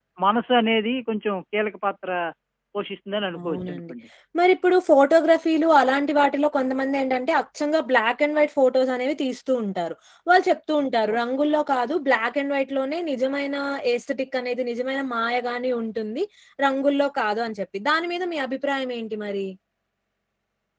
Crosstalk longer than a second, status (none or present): none